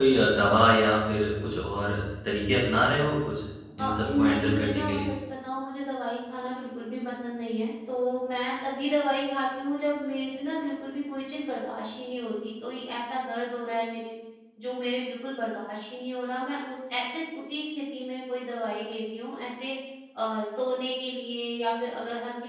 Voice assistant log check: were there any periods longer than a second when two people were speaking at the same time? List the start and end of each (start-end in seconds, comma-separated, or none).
3.8-5.0